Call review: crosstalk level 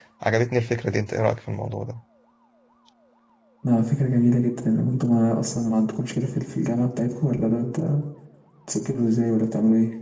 none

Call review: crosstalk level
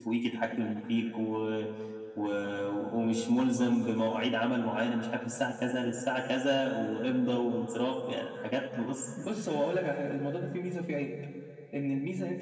none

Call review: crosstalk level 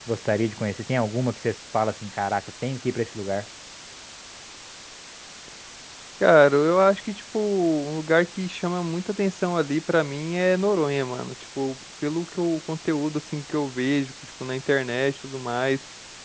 none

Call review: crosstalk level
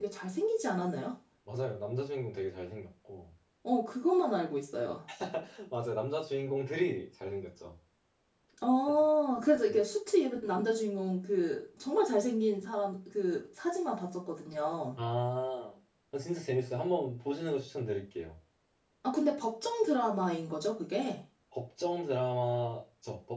none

